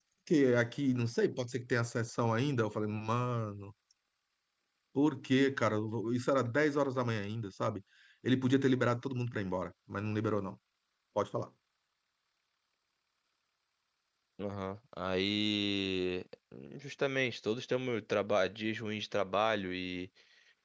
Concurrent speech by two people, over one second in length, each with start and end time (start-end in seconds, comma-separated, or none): none